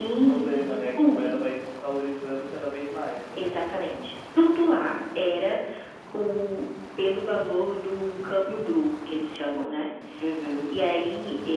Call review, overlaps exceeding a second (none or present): present